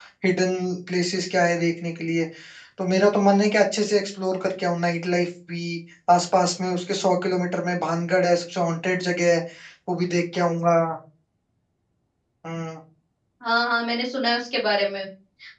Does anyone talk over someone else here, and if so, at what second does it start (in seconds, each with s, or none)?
none